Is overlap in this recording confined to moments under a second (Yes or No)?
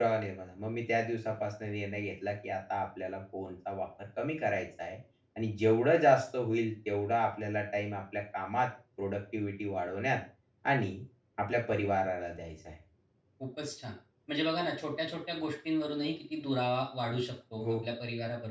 Yes